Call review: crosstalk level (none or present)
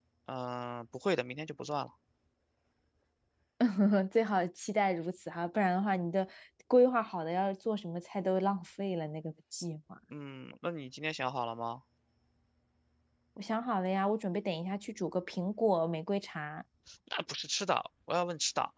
none